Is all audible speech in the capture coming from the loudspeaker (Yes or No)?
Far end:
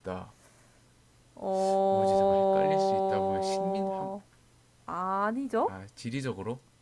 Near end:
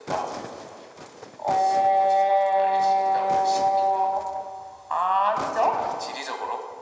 Yes